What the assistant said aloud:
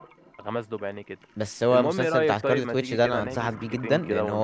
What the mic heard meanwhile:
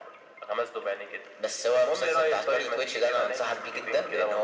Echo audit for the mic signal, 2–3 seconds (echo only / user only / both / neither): echo only